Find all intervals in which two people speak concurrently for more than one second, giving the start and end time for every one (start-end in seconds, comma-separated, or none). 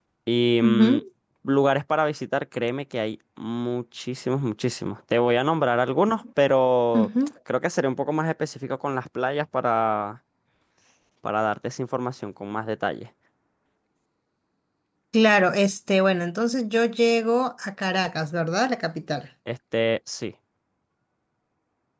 none